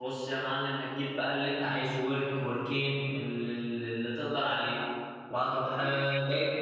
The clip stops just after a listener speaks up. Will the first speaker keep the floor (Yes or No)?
Yes